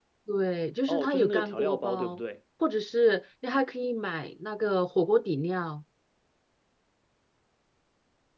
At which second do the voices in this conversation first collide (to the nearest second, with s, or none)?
1 s